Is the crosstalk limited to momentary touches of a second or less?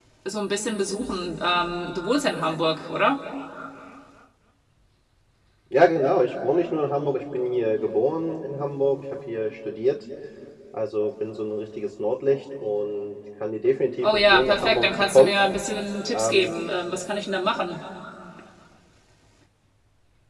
No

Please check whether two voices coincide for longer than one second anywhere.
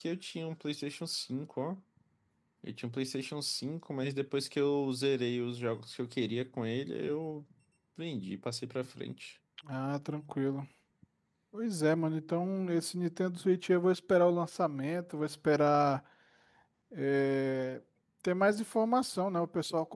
No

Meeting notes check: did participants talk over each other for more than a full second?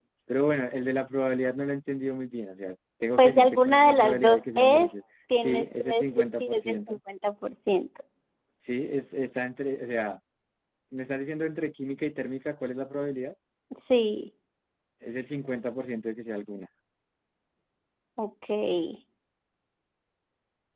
Yes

